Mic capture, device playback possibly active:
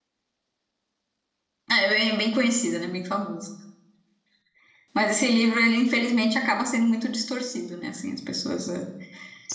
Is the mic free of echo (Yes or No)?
Yes